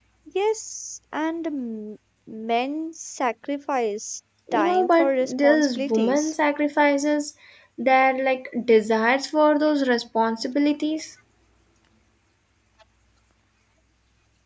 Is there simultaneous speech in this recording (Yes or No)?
Yes